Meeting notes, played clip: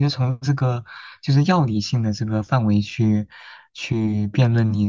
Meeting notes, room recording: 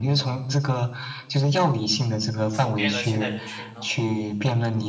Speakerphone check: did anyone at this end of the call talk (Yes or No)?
Yes